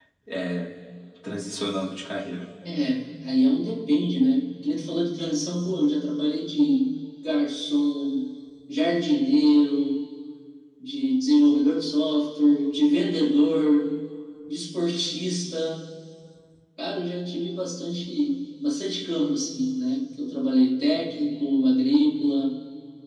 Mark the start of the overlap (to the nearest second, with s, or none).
none